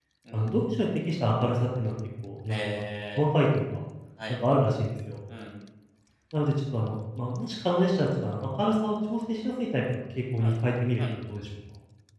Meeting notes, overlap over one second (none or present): none